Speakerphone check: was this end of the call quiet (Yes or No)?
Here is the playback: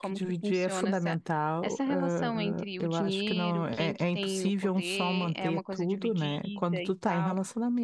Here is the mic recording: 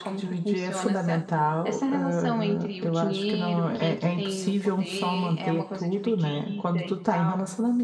Yes